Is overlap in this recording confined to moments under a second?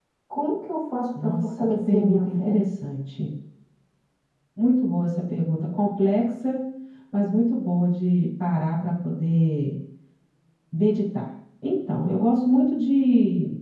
No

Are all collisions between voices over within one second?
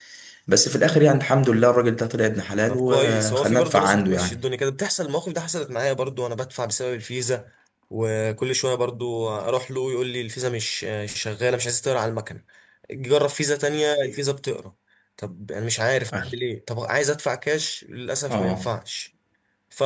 No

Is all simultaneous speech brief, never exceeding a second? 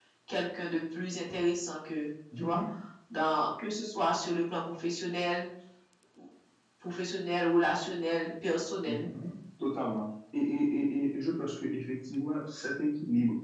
Yes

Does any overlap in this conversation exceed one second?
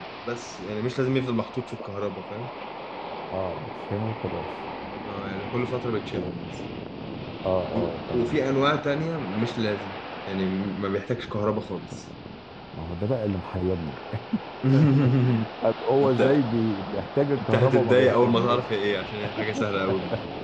Yes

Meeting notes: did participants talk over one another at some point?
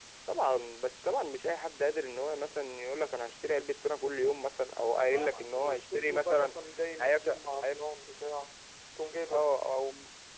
Yes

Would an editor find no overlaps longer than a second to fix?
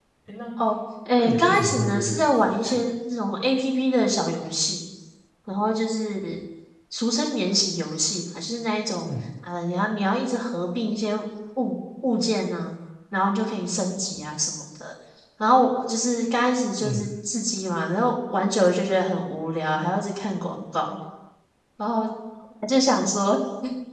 No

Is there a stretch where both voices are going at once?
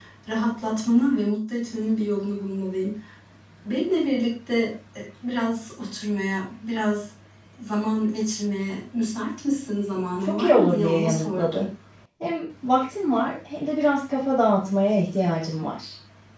Yes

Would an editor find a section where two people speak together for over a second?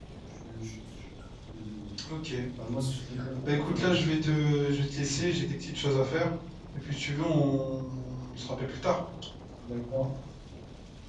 No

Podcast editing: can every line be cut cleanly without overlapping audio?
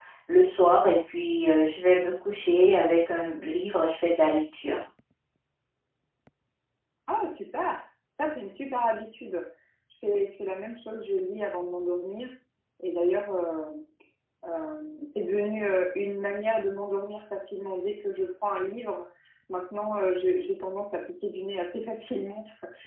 Yes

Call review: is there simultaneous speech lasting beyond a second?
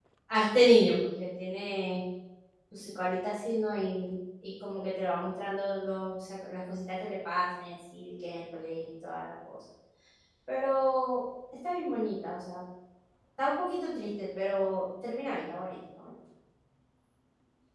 No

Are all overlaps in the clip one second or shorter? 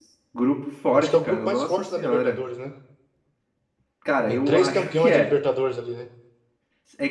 No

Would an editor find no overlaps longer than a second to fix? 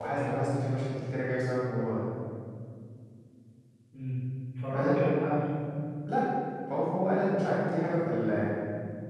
Yes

